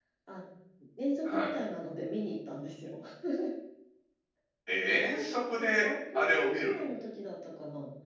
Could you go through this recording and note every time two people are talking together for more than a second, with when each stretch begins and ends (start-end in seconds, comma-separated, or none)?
5.6-6.8